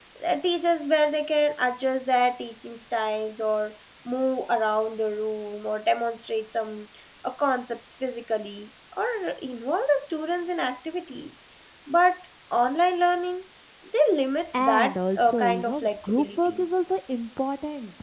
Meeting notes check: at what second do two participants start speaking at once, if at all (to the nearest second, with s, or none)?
15 s